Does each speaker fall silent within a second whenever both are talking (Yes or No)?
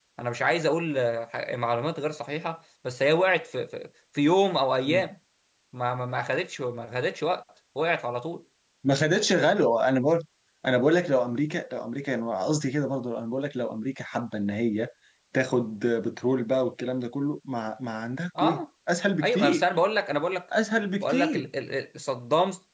Yes